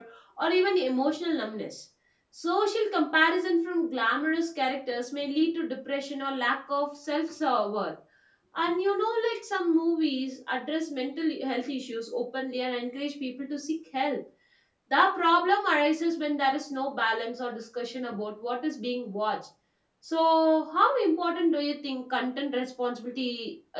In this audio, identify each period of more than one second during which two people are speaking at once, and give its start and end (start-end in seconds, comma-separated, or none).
none